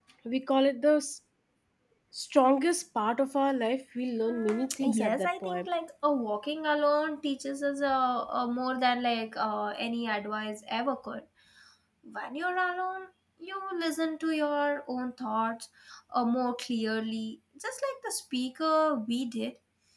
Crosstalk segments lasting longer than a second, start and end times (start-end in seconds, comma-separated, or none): 4.2-5.7